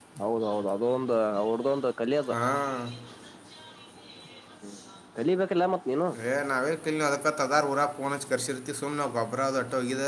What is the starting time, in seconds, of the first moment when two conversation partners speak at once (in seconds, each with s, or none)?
none